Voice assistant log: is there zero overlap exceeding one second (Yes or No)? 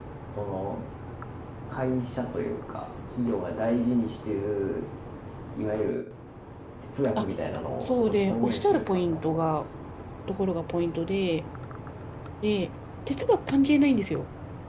No